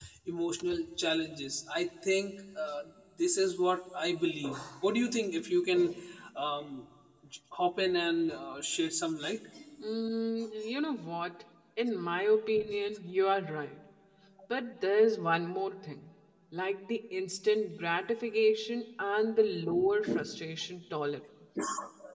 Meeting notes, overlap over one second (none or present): none